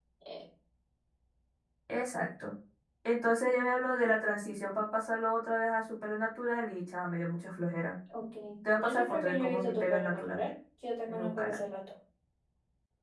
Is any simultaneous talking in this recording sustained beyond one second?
Yes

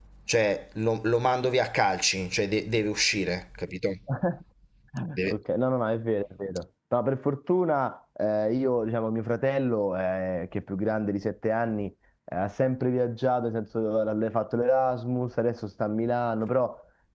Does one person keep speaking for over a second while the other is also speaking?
No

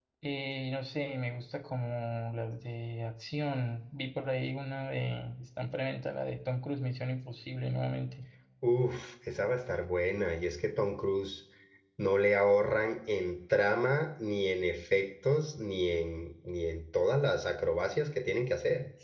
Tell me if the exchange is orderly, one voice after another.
Yes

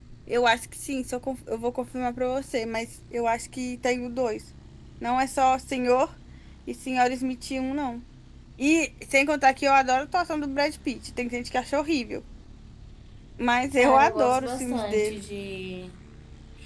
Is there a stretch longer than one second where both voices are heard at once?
Yes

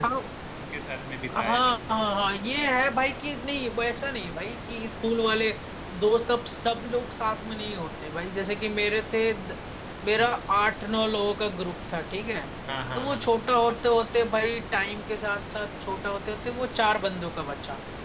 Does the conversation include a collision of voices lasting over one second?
No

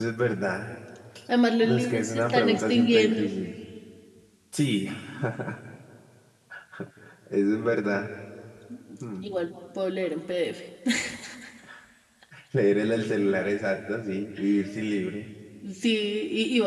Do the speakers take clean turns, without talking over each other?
No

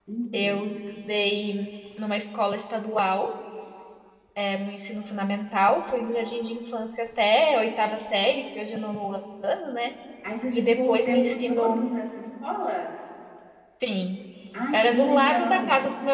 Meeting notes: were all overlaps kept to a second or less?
No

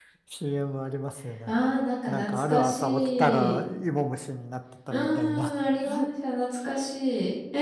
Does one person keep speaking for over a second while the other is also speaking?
Yes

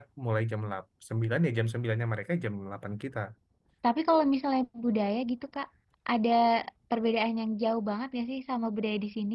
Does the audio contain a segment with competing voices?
No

